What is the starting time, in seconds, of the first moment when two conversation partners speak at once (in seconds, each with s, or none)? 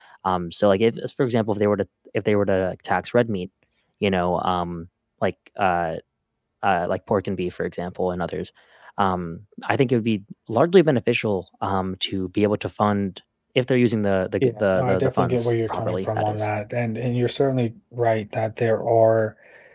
14.4 s